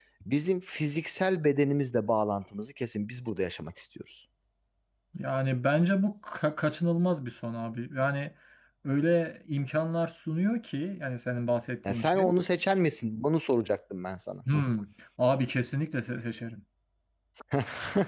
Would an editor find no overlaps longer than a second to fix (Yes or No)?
Yes